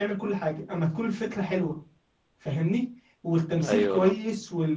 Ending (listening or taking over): listening